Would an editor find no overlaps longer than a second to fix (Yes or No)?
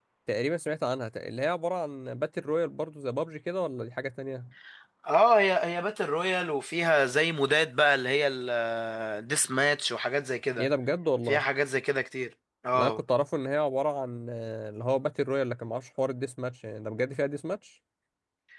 Yes